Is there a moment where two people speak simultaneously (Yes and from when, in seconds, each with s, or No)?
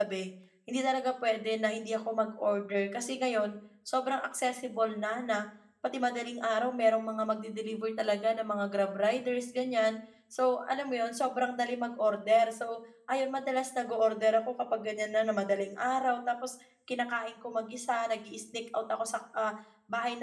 No